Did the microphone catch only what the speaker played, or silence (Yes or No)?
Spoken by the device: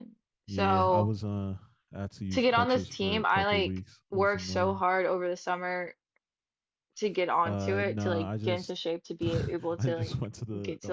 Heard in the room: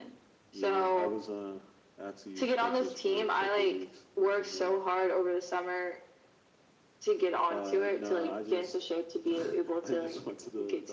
Yes